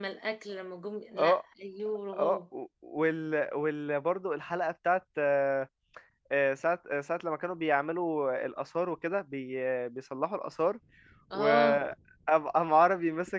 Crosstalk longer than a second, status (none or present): none